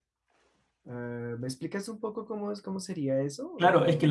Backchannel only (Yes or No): No